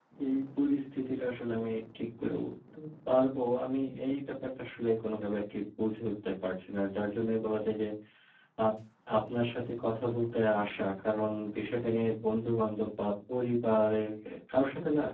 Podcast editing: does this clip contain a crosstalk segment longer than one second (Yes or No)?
No